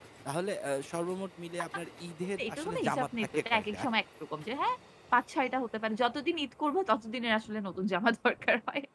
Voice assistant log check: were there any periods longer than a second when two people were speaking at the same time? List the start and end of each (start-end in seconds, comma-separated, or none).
2.4-3.8